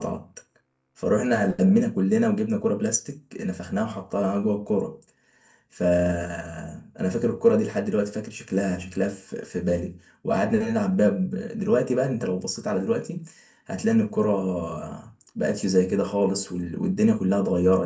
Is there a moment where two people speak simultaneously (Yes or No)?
No